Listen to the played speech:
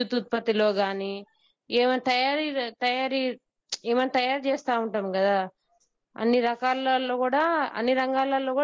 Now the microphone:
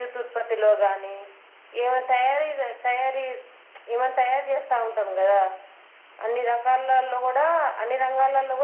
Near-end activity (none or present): none